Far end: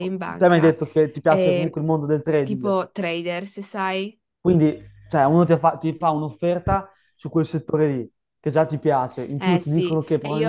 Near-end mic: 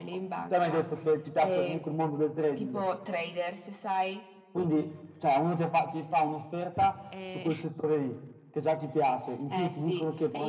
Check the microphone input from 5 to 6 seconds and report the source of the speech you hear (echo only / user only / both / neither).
echo only